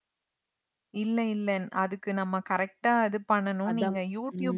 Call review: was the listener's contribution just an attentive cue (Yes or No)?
Yes